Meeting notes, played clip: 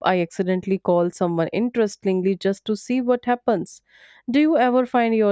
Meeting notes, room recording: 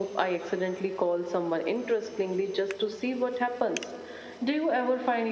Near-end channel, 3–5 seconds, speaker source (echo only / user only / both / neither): echo only